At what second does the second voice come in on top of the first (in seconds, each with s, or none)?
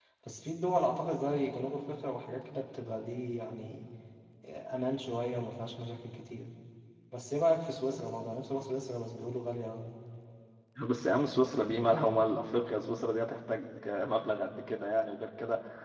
none